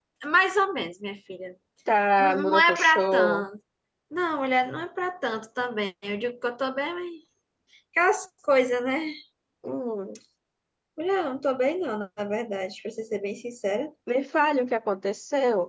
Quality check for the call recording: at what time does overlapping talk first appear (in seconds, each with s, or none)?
2.2 s